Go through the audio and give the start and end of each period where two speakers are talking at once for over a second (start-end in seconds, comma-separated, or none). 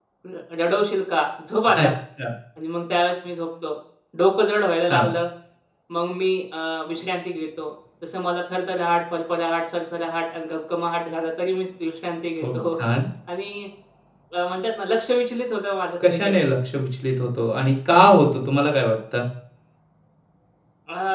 none